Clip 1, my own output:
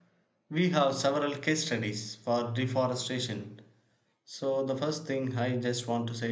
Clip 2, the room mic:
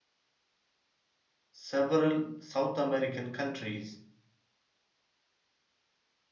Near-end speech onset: 1.5 s

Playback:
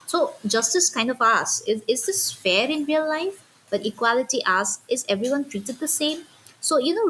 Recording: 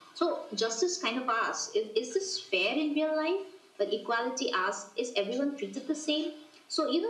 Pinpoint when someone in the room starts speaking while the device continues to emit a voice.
none

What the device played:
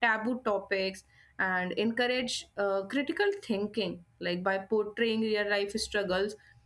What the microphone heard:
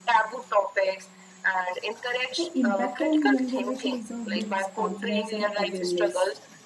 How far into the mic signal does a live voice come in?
2.4 s

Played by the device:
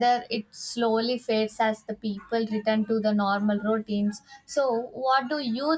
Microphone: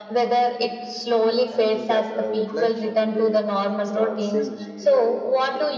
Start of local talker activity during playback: 1.2 s

